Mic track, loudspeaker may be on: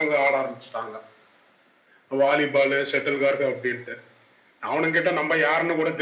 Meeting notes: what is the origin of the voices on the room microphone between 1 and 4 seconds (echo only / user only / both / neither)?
echo only